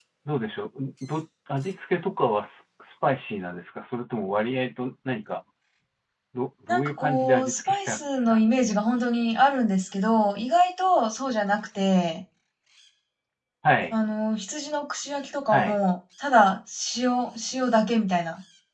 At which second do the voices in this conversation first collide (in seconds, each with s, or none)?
6.7 s